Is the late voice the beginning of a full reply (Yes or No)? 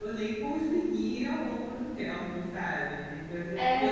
No